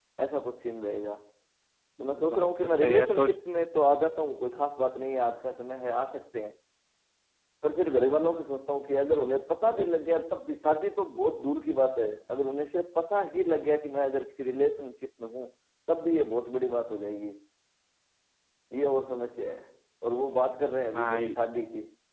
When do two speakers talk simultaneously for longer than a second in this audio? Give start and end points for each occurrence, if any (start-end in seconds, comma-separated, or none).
2.0-3.4